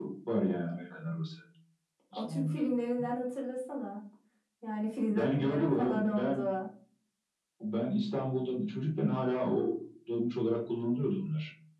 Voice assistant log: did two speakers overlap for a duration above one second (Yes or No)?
Yes